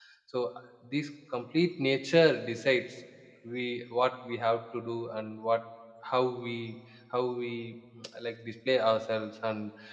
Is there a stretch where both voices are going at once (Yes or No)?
No